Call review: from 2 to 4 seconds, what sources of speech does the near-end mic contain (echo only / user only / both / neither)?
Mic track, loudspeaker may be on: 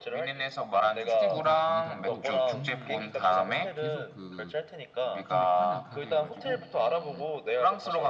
both